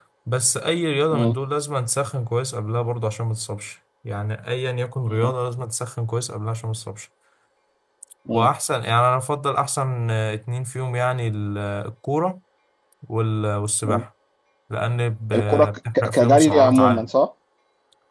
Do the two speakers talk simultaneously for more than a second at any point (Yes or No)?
Yes